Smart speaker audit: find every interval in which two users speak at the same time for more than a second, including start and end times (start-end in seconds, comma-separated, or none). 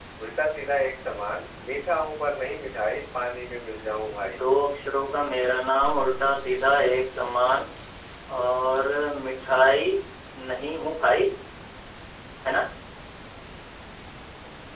none